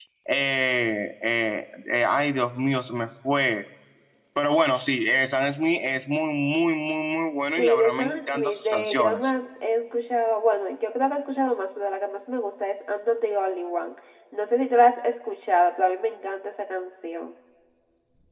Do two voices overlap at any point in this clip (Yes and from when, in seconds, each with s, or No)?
Yes, from 7.6 s